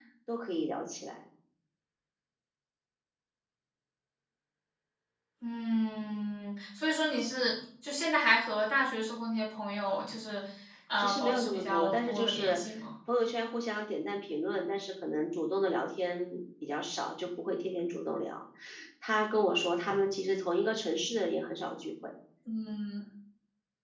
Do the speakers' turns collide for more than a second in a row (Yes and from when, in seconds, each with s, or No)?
Yes, from 11.0 s